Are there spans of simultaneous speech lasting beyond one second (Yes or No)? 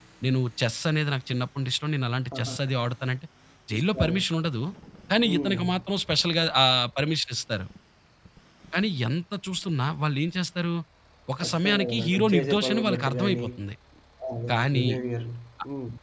Yes